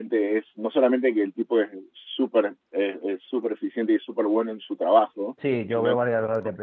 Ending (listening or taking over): taking over